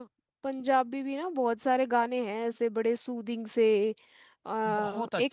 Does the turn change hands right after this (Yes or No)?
Yes